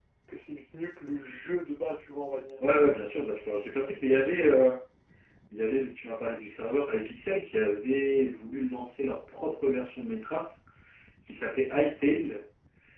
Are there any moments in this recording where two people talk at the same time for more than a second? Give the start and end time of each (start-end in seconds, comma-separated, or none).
none